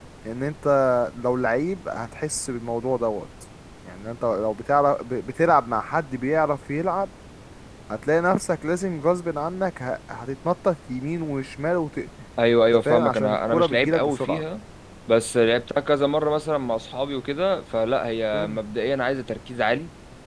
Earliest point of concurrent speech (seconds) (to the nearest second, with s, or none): 13 s